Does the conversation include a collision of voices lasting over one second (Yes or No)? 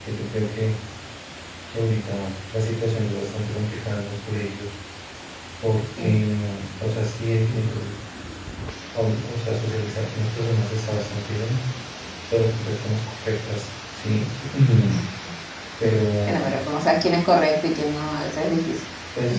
No